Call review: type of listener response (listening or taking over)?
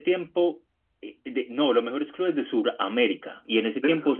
listening